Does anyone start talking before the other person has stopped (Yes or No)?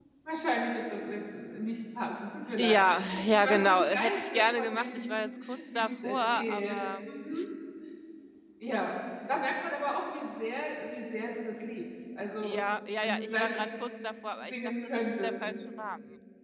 Yes